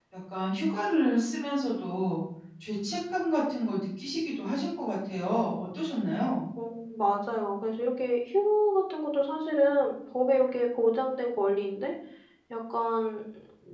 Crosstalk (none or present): none